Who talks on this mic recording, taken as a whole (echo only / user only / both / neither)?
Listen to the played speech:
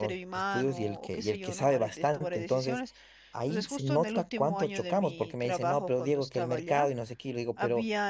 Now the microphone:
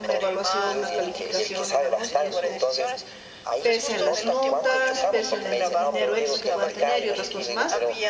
both